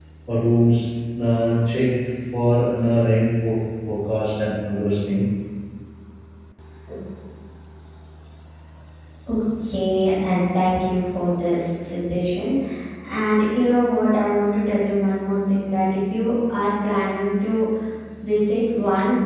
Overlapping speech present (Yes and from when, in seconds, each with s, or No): No